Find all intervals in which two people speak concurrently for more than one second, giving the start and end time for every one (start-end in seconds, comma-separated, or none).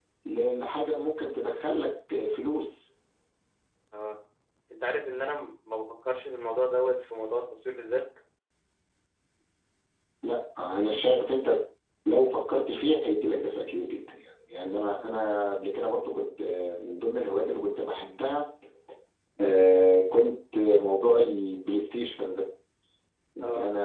none